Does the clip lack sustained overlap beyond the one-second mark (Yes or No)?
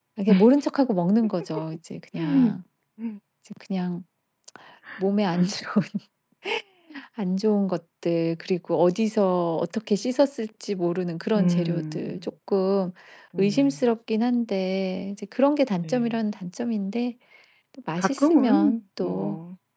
No